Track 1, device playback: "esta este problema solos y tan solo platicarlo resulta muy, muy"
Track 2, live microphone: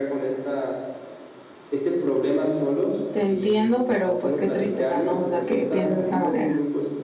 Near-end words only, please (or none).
te entiendo, pero, pues, qué tristeza, ¿no? O sea, que pienses de esa manera".